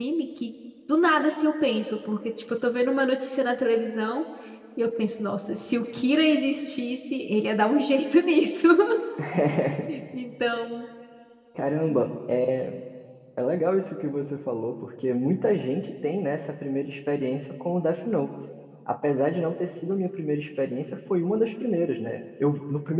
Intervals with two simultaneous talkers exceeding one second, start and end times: none

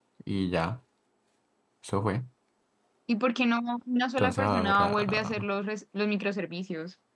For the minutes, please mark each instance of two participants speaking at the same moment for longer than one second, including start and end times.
4.2-5.5

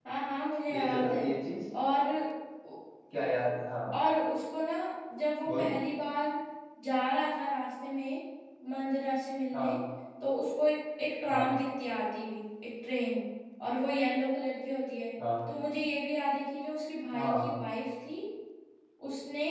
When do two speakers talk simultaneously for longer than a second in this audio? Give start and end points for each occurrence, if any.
none

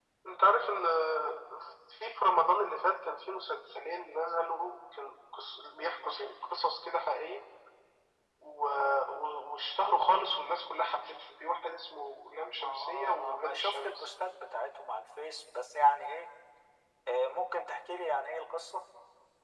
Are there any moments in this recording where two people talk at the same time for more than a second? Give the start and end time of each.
12.4-14.1

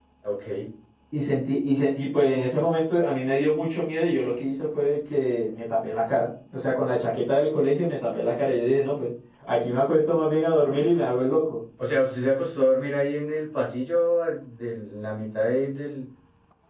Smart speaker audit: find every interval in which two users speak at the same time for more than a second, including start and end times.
none

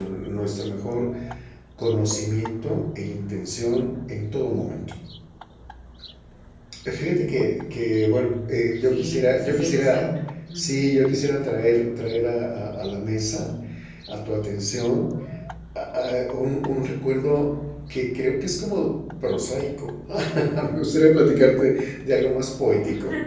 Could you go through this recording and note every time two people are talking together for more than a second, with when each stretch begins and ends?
8.8-10.2

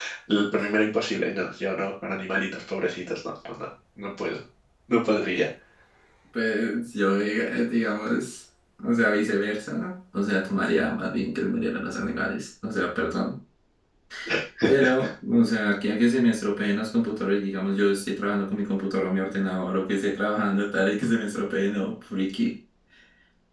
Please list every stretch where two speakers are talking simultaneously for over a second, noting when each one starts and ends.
none

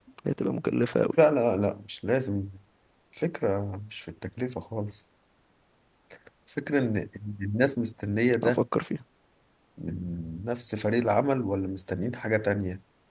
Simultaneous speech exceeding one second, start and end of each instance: none

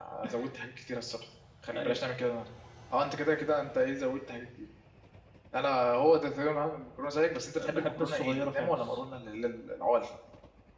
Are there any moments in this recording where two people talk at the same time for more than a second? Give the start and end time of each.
7.6-9.0

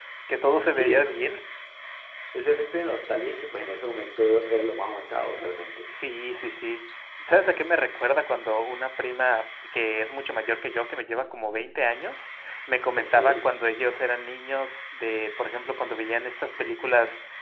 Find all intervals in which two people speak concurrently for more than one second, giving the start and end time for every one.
none

